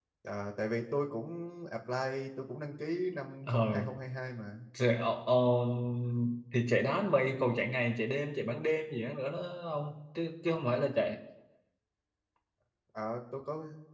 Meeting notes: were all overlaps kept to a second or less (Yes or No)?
Yes